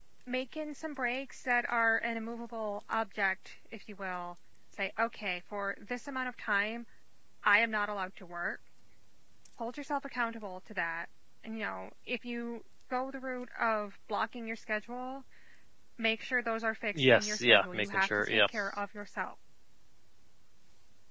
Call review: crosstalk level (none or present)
present